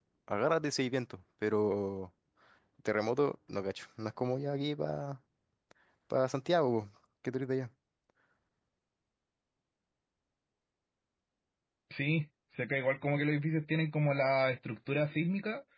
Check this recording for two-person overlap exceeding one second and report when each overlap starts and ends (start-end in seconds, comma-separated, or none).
none